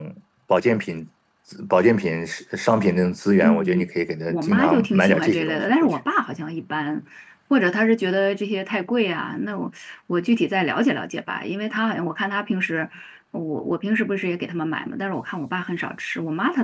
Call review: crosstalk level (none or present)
present